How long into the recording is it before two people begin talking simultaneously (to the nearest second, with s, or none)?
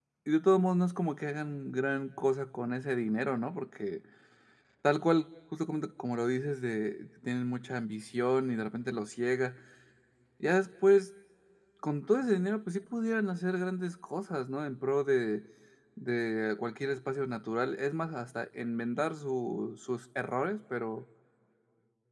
none